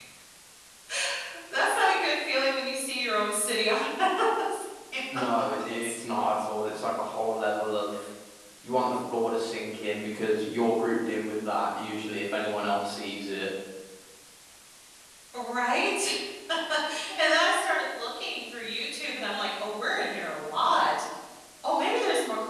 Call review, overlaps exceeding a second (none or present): none